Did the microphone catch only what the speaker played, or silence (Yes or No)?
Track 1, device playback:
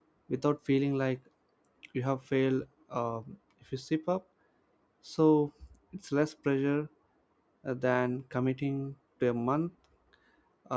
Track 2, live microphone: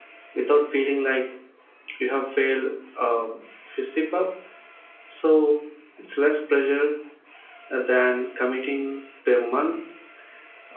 Yes